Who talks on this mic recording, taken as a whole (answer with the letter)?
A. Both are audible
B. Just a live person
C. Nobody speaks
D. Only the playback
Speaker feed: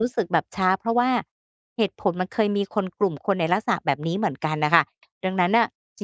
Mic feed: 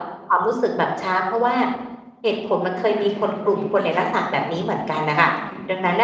A